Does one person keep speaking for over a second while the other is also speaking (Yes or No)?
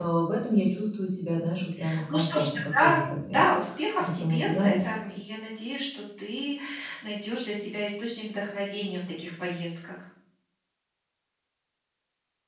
Yes